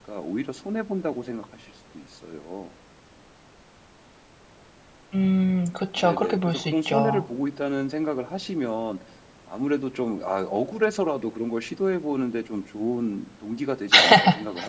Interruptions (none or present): present